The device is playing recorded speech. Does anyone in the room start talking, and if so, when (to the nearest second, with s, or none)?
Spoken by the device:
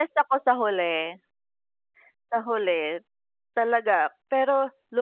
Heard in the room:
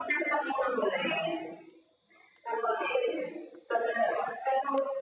none